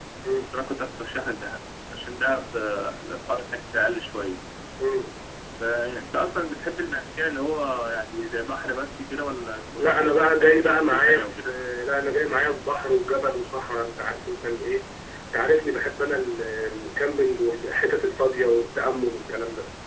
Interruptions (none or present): present